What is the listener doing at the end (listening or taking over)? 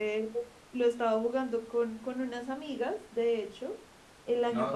listening